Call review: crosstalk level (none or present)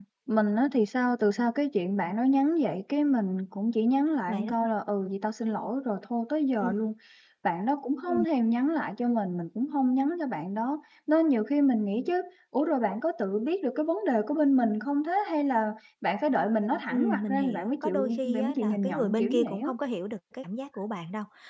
present